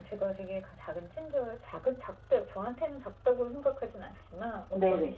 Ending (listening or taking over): listening